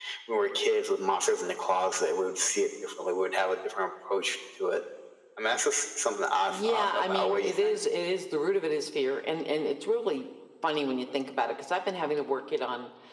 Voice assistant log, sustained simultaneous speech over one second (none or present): present